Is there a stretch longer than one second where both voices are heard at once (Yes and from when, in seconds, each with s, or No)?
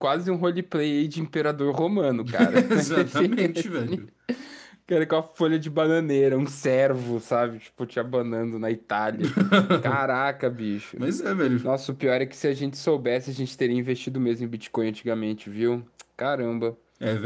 Yes, from 2.2 s